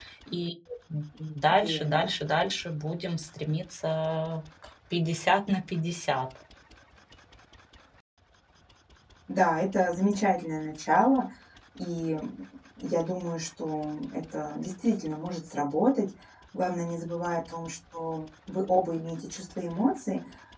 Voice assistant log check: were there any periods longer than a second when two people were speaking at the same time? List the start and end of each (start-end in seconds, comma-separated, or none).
none